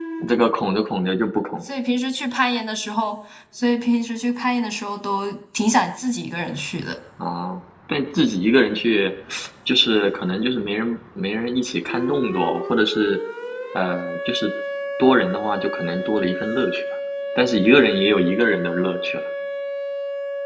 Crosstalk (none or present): none